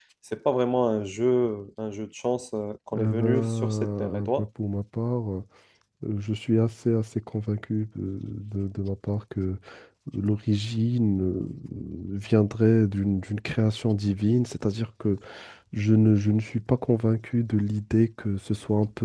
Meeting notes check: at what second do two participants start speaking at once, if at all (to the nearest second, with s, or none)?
3 s